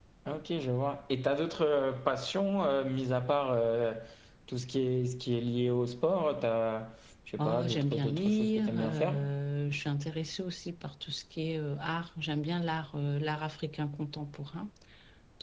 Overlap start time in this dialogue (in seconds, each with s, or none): 7.4 s